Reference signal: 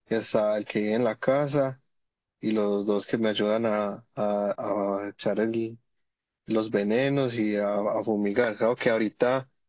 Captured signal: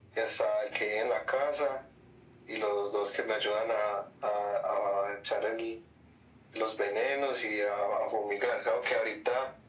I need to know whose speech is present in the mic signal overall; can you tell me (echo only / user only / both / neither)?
echo only